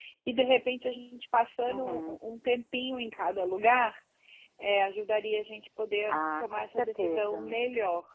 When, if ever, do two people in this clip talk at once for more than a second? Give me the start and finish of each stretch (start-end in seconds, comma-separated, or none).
6.1-7.6